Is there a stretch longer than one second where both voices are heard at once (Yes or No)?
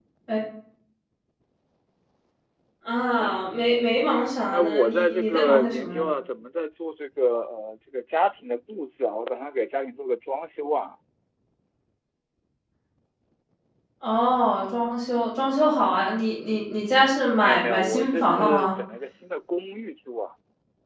Yes